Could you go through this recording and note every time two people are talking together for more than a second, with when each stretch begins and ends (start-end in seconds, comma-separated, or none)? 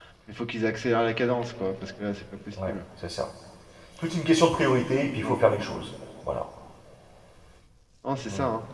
none